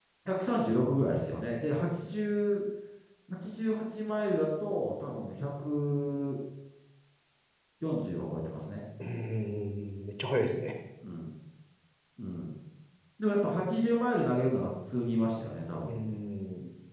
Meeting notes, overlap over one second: none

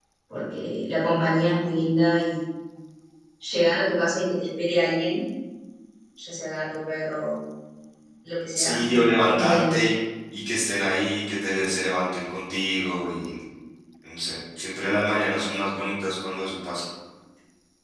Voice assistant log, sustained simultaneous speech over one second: present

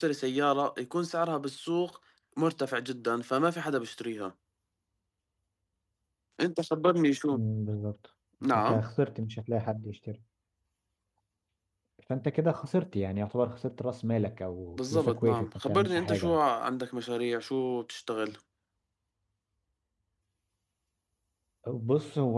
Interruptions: present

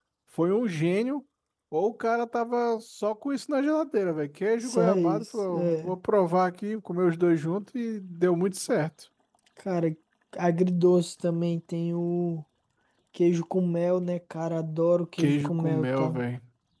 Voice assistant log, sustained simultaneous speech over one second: present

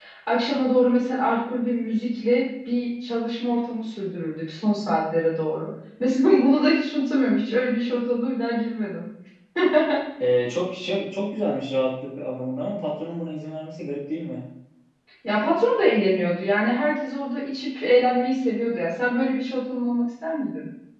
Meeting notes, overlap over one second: none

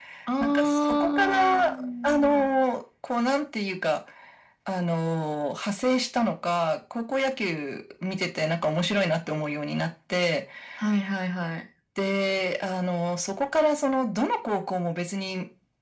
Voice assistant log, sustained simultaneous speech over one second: present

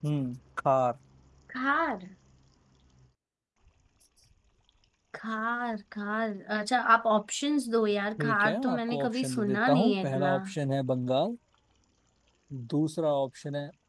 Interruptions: present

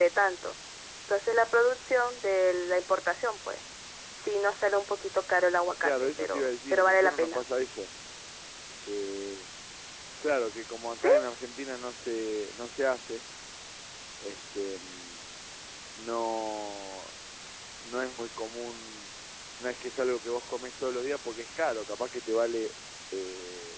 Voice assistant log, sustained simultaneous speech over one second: present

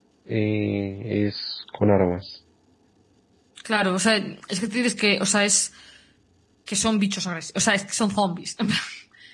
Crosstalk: none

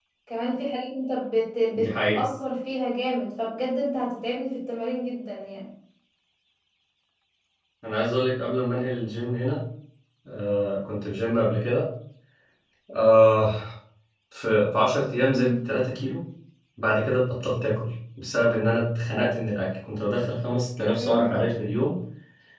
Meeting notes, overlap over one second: none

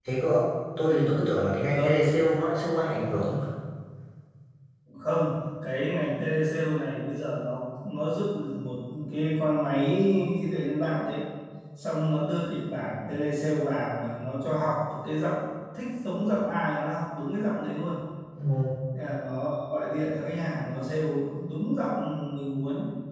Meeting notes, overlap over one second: none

